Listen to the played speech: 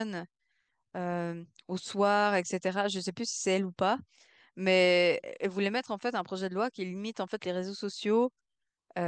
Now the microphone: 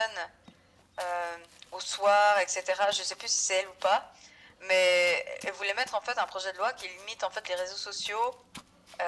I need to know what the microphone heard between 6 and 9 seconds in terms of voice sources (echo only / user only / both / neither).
echo only